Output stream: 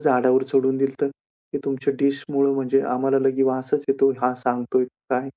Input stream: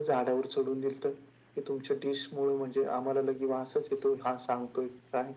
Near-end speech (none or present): none